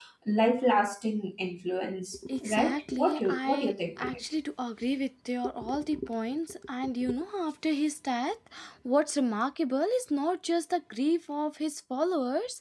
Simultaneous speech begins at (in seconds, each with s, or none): 2.4 s